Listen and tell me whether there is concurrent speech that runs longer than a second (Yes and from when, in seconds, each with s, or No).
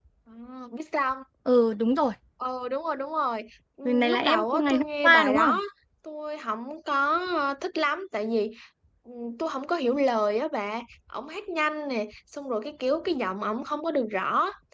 Yes, from 3.9 s